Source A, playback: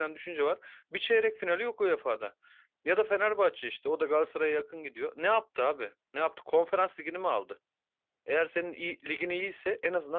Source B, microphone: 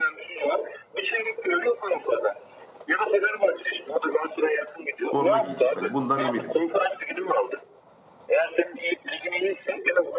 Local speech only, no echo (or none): forma giyecek. Hani bundan eminim.